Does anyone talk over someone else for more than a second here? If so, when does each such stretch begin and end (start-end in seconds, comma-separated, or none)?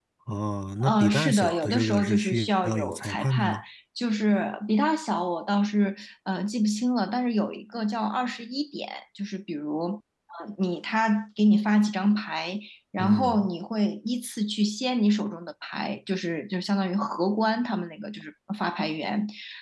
0.8-3.6